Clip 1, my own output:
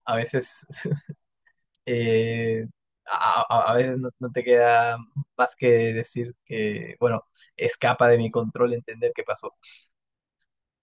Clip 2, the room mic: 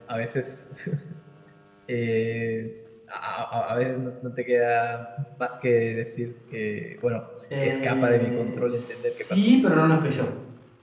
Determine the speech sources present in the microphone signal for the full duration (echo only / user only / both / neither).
both